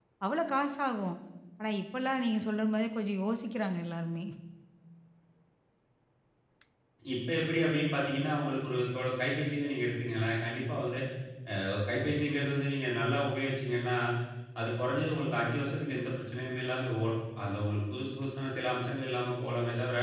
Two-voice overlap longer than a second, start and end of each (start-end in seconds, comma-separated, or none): none